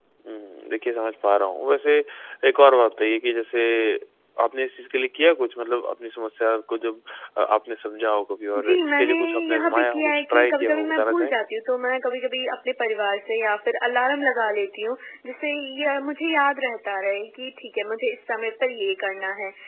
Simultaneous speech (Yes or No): Yes